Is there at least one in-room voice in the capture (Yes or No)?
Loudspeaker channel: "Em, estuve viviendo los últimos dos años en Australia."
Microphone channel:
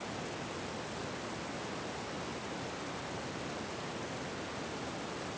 No